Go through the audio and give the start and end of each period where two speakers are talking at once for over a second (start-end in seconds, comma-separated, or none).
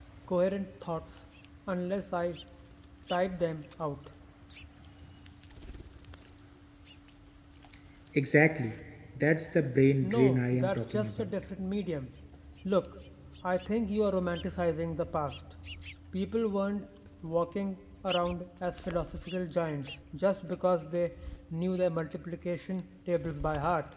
10.0-11.3